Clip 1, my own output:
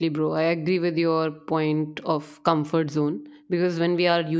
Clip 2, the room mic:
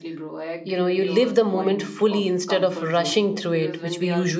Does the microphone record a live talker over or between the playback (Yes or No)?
Yes